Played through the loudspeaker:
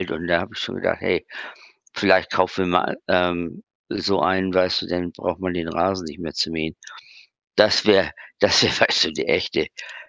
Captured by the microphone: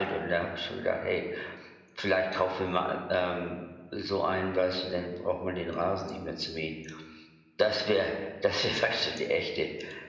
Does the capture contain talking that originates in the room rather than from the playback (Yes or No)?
No